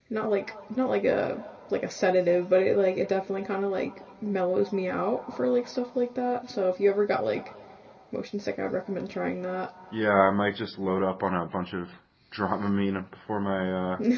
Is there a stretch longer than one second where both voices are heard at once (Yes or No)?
No